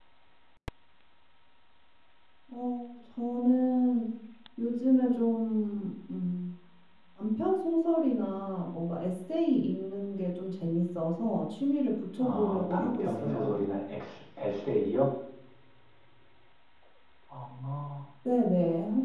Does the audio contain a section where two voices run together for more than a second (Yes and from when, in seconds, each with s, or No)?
Yes, from 12.2 s